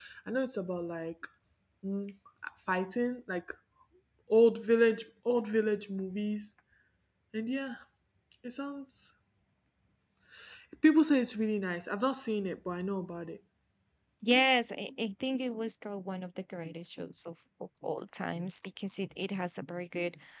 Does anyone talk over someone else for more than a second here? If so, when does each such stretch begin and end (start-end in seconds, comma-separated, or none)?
none